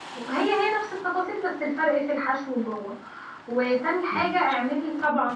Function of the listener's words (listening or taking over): listening